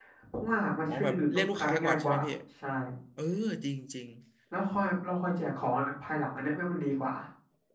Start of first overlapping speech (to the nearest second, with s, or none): 1 s